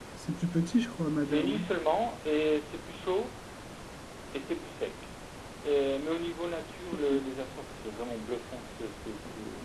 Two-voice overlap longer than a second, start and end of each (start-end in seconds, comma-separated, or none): none